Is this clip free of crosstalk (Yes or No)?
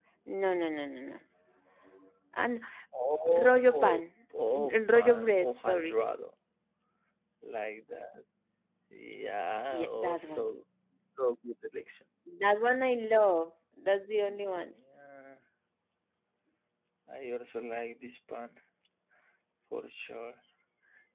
No